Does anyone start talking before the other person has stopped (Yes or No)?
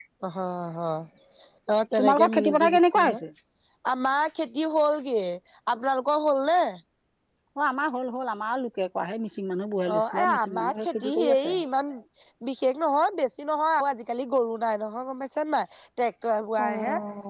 Yes